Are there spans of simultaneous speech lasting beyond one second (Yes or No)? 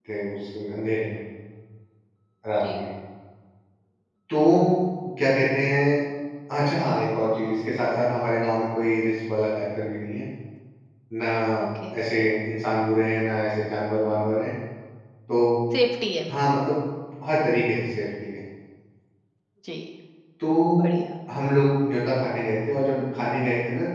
No